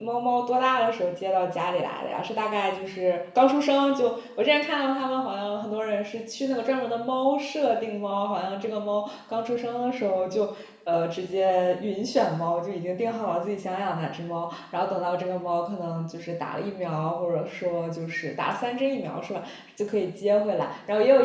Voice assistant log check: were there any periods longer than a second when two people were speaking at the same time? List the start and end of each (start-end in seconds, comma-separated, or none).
none